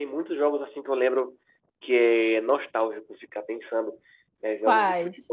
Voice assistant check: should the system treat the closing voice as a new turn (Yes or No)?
No